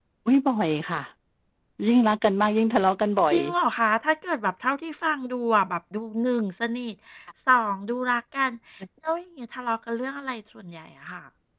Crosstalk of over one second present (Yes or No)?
No